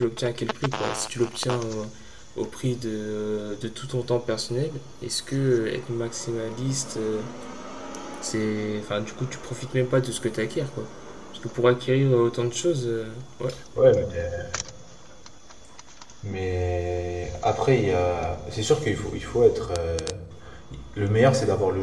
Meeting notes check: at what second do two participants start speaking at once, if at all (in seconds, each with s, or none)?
none